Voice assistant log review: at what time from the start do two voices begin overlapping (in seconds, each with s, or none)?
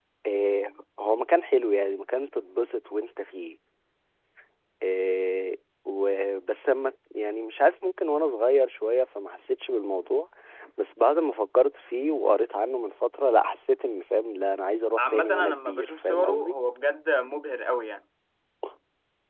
15.0 s